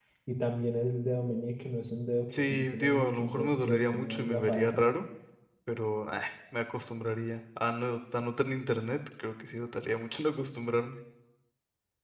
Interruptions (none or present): present